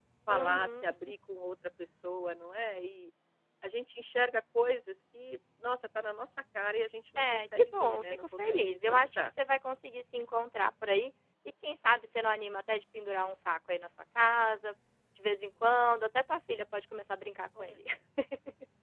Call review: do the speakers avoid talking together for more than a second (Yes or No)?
No